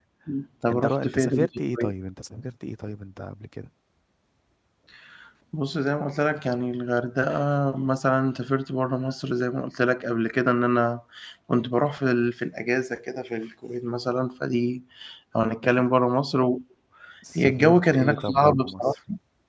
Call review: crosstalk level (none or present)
present